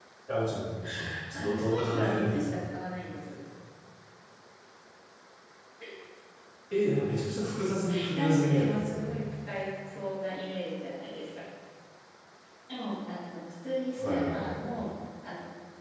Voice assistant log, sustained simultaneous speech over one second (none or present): present